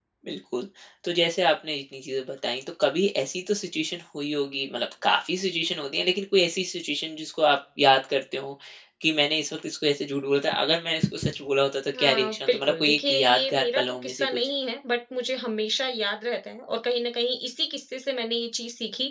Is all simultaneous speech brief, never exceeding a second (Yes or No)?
No